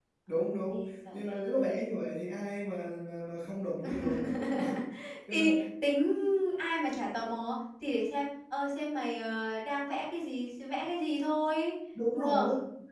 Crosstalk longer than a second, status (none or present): present